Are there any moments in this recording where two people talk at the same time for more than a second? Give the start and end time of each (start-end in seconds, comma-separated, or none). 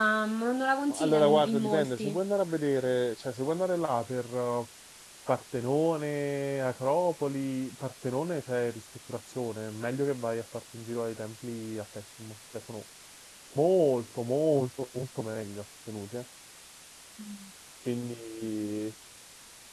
0.9-2.2